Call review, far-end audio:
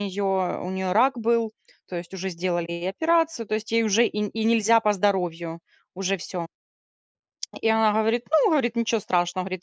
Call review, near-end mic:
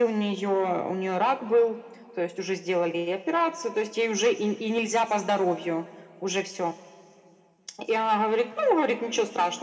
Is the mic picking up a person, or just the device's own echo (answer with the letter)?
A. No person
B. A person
A